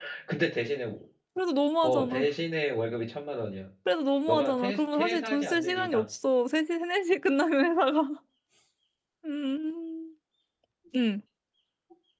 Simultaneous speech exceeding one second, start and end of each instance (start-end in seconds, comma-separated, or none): 4.3-6.1